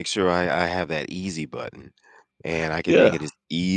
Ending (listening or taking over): listening